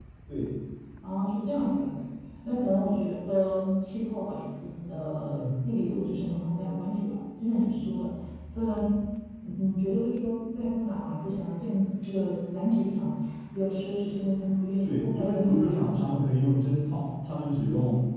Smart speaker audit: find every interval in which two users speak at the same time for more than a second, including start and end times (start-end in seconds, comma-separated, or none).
14.8-16.2